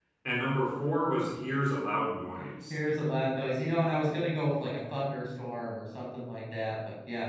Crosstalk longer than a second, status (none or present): none